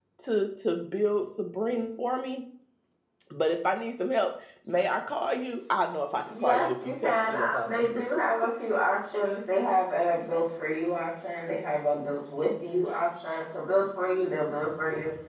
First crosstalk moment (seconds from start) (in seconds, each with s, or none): 6.3 s